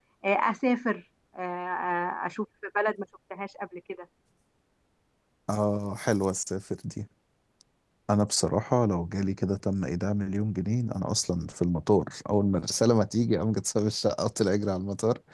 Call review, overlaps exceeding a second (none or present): none